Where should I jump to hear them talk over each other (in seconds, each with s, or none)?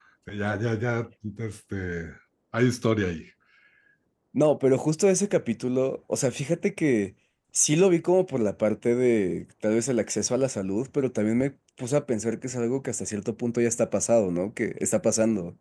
none